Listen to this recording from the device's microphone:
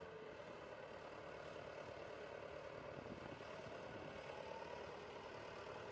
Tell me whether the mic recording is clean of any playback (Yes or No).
Yes